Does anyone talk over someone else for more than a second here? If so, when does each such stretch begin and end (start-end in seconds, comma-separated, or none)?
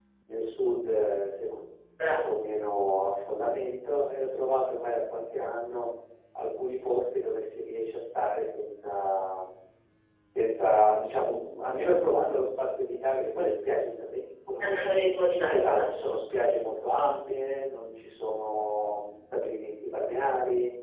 none